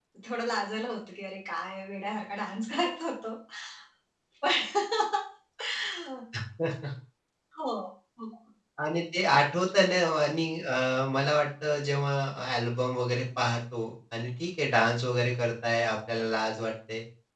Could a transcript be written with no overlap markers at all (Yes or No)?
Yes